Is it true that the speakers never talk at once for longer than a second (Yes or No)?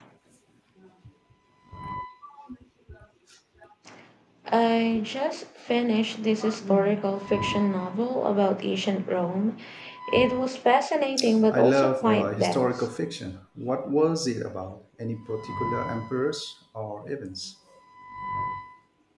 No